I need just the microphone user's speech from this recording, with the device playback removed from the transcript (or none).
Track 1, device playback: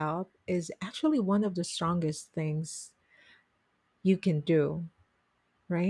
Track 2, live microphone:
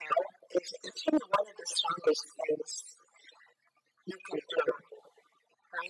none